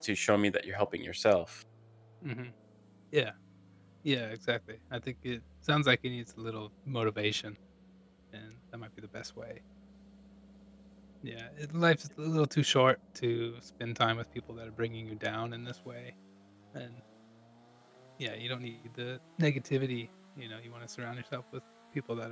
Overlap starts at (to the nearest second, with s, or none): none